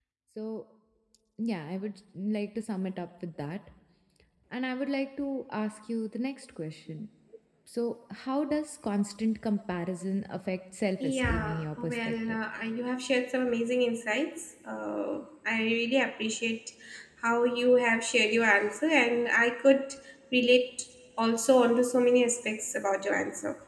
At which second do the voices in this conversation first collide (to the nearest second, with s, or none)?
11 s